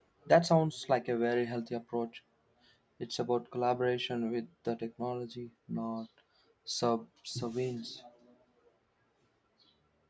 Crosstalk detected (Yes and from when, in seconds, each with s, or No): No